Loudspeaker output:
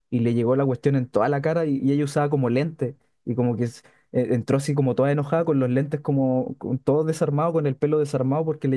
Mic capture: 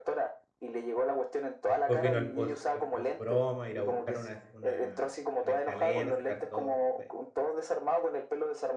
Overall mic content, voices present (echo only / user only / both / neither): both